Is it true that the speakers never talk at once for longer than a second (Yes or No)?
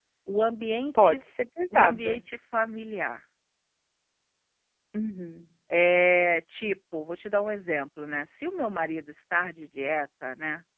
Yes